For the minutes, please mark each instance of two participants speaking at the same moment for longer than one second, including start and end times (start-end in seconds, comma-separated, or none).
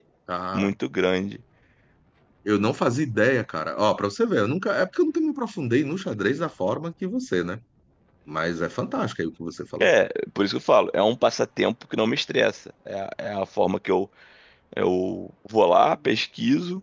none